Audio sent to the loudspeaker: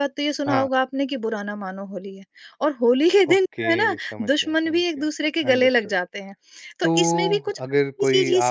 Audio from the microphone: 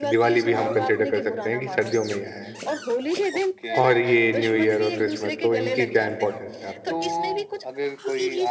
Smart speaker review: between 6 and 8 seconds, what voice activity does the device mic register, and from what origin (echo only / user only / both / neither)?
both